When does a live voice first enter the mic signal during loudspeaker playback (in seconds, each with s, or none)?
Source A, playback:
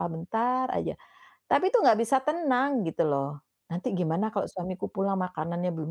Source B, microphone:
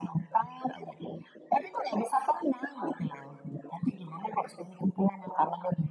none